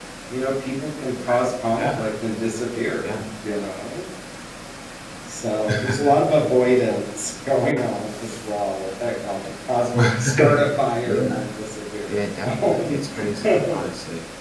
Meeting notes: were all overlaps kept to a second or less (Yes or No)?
No